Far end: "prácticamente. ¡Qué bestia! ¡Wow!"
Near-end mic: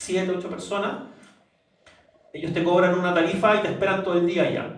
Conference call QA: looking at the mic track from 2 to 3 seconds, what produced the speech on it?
user only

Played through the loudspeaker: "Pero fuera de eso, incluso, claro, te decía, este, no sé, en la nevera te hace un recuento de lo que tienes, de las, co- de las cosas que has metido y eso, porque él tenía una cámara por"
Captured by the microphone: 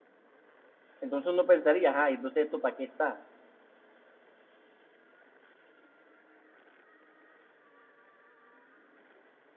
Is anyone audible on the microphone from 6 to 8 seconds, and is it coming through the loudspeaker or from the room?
neither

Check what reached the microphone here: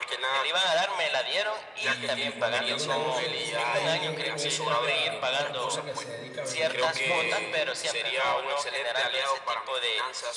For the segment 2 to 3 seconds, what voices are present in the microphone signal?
both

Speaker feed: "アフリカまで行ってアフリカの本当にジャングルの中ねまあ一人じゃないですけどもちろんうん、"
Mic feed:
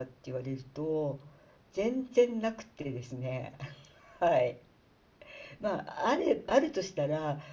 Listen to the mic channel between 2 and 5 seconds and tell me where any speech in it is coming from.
user only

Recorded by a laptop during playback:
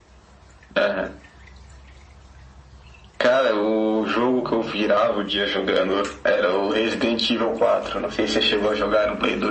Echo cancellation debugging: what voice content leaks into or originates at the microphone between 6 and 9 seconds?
echo only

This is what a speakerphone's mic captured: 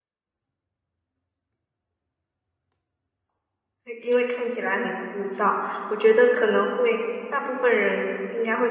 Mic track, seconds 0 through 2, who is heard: neither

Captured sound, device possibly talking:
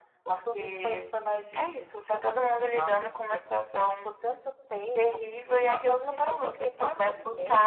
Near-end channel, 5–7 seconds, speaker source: echo only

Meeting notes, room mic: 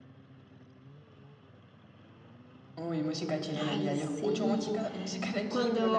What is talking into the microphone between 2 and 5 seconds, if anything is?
both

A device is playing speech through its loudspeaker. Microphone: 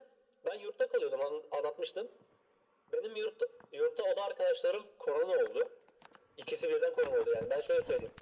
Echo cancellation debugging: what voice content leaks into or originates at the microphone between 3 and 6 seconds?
echo only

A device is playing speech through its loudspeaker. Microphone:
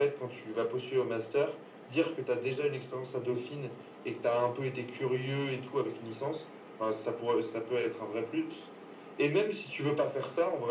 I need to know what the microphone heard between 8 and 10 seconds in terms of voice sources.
echo only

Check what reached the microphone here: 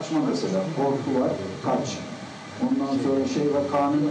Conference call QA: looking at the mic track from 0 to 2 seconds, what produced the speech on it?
both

